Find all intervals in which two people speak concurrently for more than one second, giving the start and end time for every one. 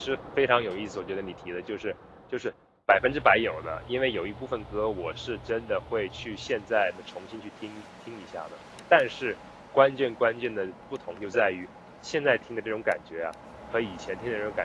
none

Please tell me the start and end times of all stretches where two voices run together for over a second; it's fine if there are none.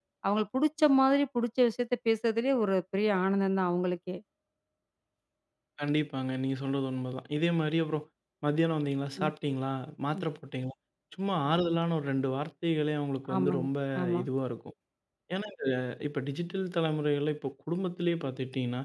none

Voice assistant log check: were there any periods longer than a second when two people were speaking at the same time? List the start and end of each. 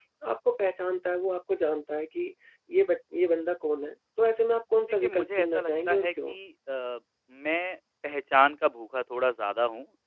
4.9-6.3

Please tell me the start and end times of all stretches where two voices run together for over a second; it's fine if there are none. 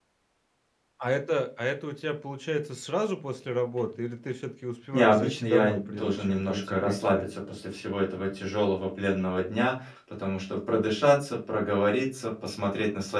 4.9-7.2

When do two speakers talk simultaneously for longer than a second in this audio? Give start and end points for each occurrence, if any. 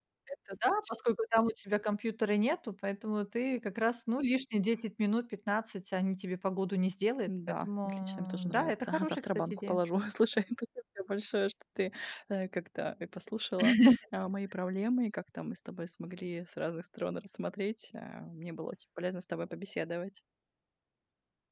7.3-9.8

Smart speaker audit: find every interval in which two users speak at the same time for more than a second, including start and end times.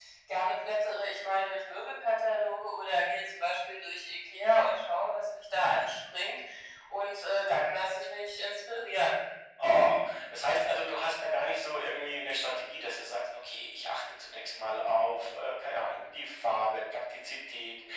none

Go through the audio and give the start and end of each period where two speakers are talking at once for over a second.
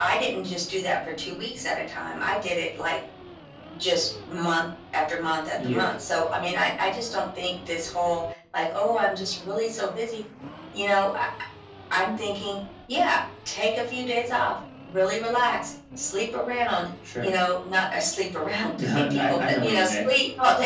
18.8-20.0

